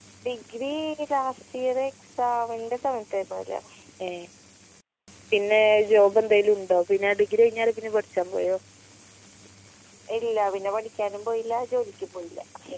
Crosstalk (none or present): none